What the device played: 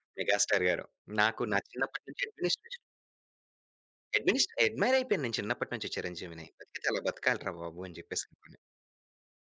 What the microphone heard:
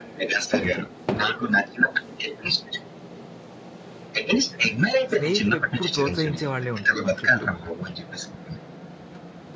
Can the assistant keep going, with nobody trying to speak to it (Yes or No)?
No